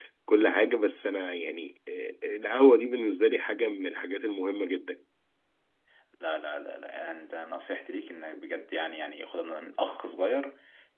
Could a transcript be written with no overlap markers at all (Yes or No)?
Yes